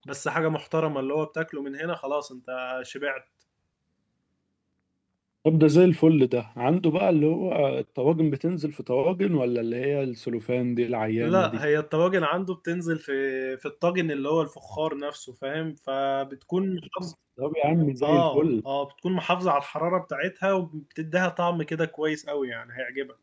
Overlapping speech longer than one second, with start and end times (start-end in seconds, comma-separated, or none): none